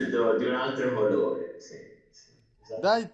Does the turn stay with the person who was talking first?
No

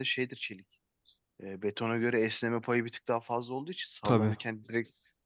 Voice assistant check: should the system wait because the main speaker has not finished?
Yes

